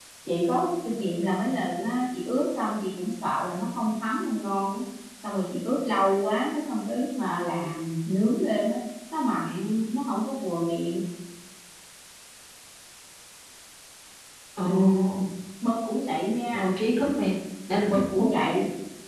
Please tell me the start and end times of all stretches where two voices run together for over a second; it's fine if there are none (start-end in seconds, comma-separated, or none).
none